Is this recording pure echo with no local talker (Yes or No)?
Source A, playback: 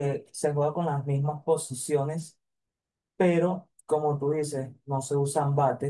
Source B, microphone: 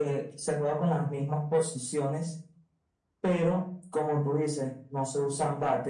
Yes